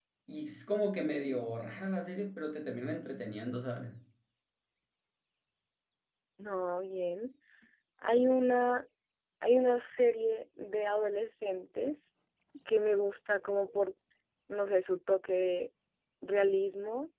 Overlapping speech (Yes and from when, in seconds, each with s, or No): No